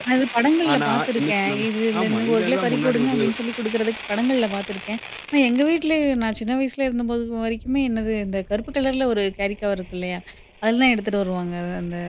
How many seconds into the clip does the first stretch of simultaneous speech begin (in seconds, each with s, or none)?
0.7 s